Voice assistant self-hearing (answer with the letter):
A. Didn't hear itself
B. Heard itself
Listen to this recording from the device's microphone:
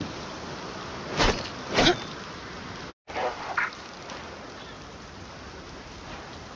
A